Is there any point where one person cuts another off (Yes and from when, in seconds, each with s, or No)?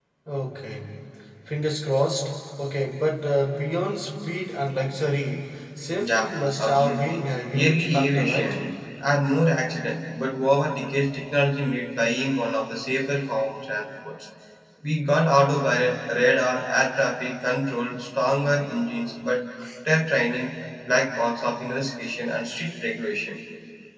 Yes, from 6.0 s